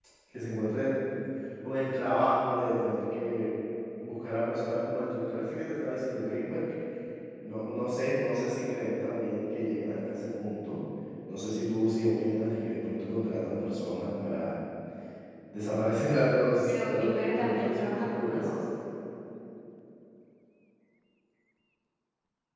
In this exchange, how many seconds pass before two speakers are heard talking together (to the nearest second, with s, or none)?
17 s